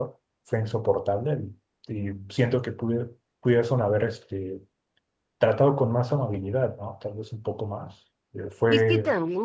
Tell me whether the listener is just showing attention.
No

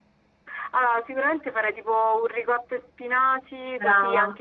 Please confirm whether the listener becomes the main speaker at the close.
No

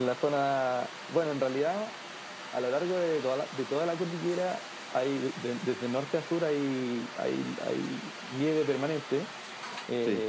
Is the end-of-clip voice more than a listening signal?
No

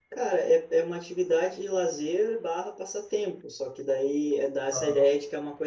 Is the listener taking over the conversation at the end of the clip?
No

